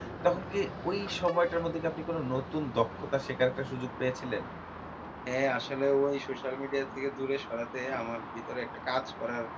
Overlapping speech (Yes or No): No